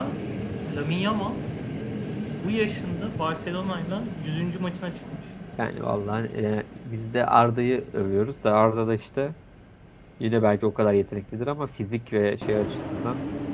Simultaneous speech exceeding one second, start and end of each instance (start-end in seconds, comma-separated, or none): none